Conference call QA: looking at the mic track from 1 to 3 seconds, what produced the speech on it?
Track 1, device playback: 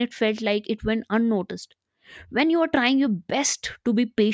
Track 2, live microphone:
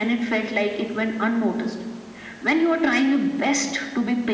echo only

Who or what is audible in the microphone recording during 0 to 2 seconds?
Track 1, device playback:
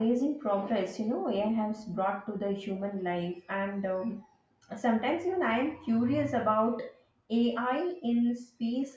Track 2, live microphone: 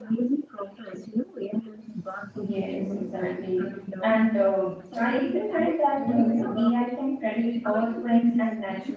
echo only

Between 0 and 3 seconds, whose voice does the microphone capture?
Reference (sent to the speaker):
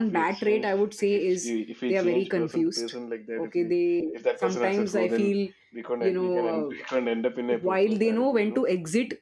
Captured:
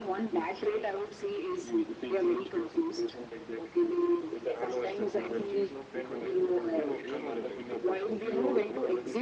echo only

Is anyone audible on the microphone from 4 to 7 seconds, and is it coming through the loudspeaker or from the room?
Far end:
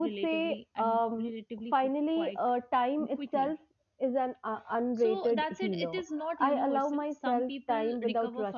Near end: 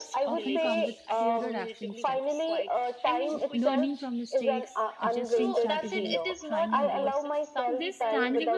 both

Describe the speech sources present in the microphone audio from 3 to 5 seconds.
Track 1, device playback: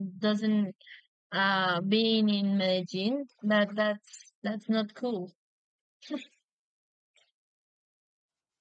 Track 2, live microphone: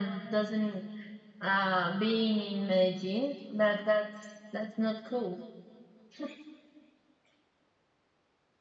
echo only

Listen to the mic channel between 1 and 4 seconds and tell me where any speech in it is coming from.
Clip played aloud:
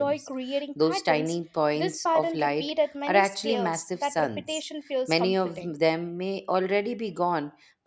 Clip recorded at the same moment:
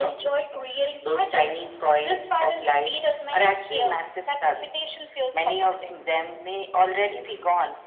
echo only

